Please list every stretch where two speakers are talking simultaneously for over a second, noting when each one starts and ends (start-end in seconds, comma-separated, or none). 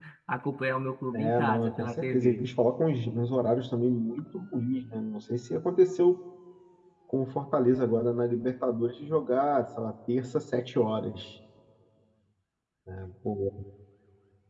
1.1-2.4